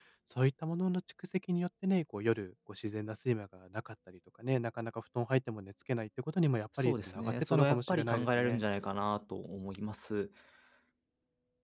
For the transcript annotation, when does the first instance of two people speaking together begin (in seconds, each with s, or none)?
6.8 s